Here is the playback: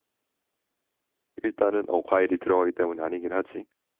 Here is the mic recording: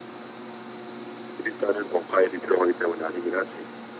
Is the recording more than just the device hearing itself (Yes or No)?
No